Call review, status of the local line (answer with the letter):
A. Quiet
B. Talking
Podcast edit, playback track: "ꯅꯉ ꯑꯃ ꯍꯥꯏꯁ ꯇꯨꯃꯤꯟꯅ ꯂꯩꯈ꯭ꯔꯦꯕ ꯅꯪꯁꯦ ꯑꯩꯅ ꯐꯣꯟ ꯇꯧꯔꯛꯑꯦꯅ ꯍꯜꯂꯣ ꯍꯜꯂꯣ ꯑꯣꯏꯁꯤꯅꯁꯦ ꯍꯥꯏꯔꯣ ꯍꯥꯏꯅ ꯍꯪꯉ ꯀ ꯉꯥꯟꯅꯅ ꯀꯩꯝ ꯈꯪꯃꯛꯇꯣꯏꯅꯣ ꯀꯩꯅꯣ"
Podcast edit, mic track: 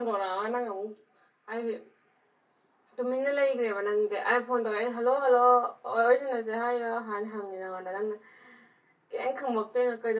A